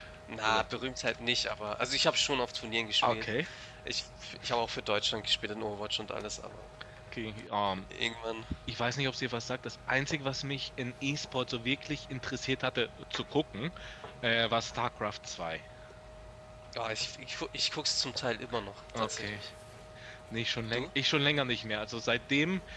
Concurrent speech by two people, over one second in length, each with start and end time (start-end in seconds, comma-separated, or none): none